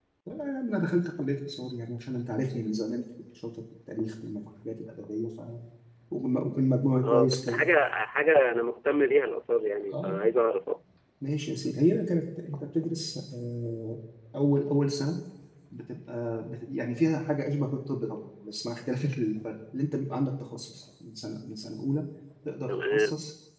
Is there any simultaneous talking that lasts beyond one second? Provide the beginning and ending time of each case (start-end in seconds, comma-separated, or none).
none